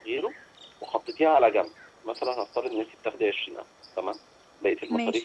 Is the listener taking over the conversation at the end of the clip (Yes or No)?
No